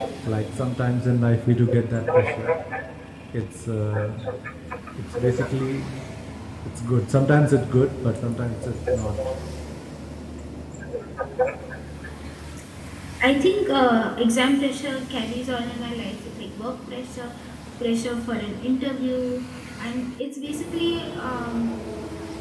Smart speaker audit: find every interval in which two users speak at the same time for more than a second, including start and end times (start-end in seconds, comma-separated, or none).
none